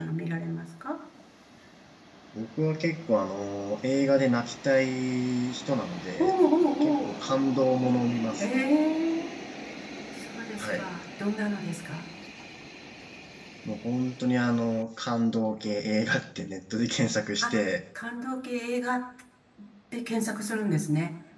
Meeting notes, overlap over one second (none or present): none